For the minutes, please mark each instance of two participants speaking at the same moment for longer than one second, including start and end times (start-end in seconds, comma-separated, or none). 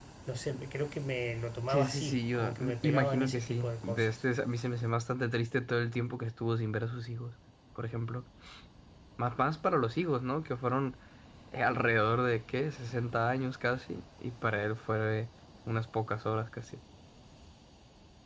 1.7-4.1